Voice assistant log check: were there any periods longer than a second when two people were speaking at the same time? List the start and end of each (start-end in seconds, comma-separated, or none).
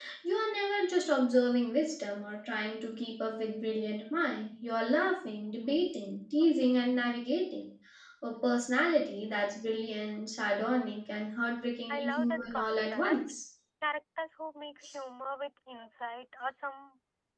11.9-13.3